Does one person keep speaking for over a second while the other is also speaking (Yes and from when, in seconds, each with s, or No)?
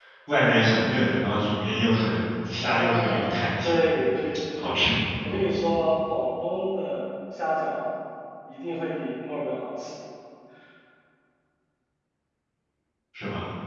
Yes, from 2.6 s